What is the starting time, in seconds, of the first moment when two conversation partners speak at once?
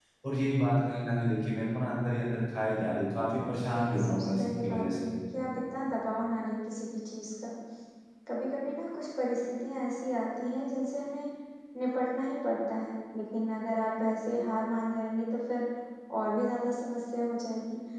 3 s

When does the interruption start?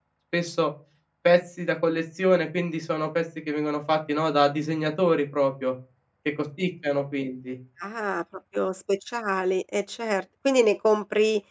none

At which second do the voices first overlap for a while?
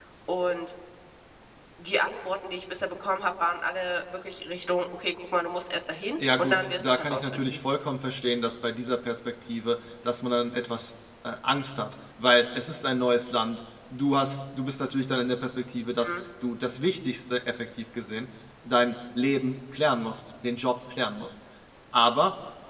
6 s

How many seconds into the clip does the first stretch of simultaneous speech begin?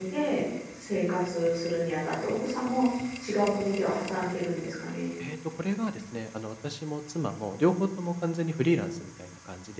none

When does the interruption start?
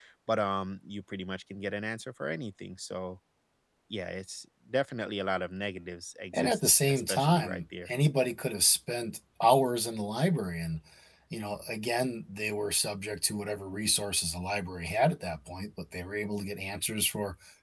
6 s

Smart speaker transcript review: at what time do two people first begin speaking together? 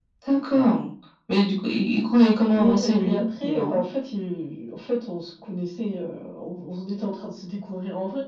3 s

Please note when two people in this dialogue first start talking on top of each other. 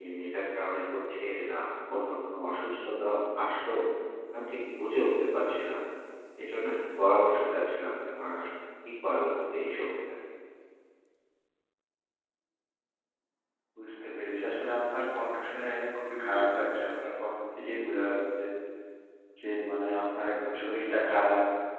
none

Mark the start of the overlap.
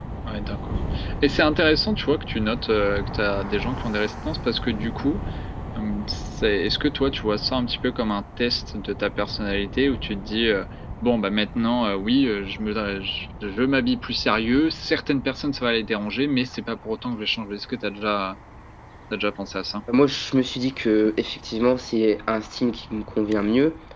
none

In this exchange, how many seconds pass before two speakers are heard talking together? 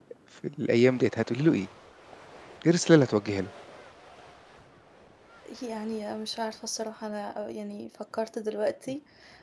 none

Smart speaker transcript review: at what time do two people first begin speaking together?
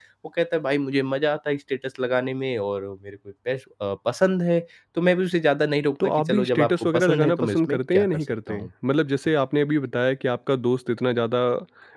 6 s

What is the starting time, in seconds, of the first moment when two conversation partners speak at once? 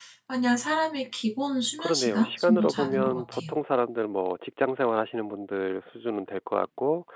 2 s

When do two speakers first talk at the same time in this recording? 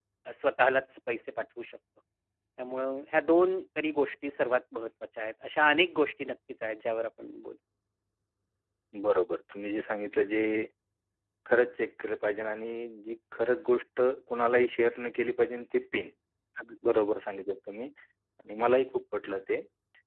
none

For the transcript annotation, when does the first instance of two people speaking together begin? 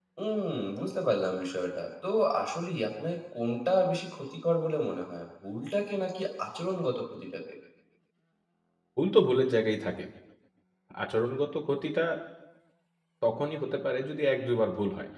none

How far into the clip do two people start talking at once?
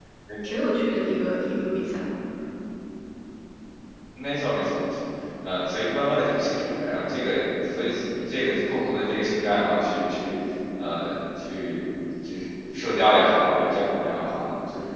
none

